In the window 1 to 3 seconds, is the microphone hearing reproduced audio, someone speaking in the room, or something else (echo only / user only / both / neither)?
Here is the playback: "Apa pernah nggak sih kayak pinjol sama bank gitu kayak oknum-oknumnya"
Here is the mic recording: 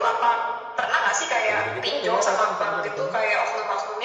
both